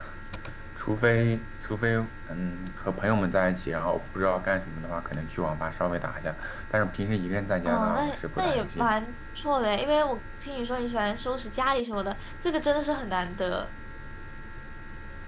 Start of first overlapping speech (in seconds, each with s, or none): 7.7 s